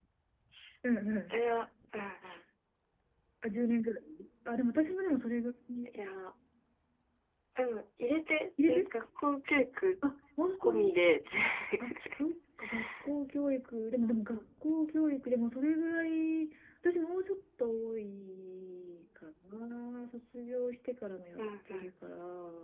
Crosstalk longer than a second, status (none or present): none